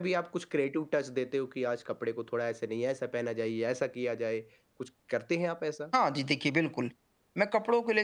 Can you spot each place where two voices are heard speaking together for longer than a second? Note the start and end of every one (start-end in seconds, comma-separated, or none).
none